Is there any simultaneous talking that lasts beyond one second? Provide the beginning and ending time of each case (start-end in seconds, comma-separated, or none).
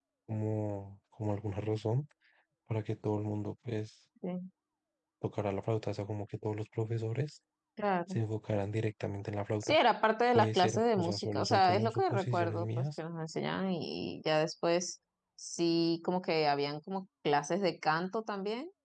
10.3-12.9